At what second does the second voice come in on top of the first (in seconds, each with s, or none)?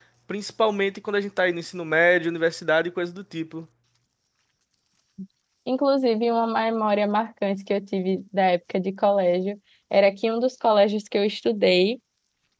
none